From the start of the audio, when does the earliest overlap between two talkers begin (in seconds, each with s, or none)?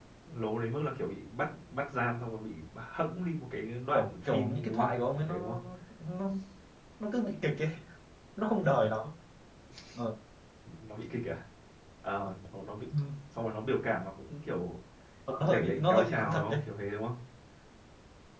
3.9 s